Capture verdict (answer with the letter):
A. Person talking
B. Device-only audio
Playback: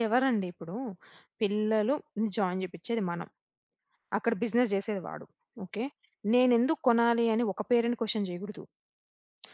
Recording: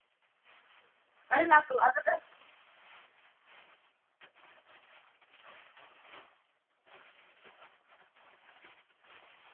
A